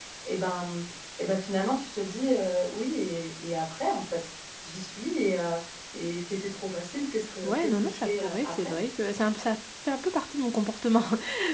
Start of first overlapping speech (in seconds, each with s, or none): 7.4 s